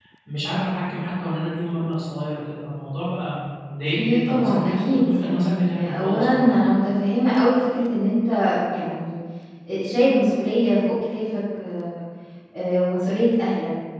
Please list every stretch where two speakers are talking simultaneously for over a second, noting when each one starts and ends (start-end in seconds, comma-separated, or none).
3.9-6.5